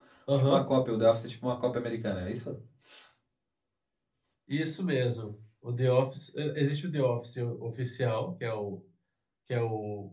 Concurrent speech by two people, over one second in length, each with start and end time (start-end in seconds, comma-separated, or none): none